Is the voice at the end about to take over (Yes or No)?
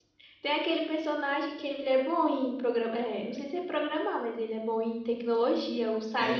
Yes